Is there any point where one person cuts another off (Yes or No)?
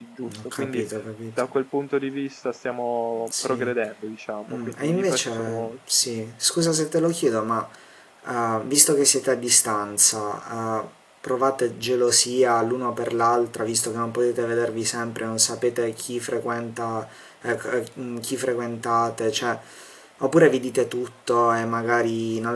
Yes